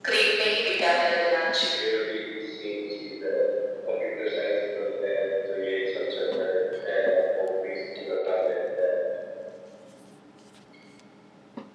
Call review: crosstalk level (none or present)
none